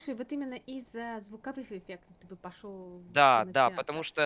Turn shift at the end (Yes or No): Yes